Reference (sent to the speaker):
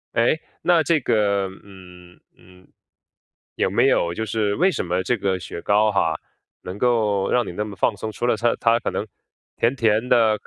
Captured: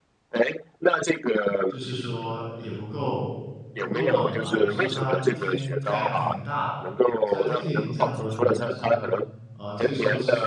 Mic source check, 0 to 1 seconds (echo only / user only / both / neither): echo only